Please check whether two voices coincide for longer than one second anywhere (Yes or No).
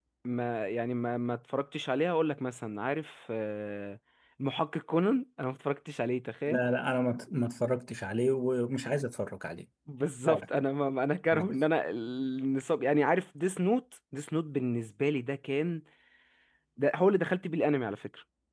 No